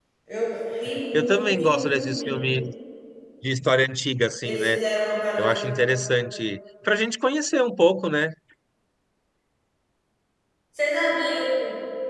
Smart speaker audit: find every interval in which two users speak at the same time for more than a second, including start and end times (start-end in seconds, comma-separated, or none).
1.1-2.4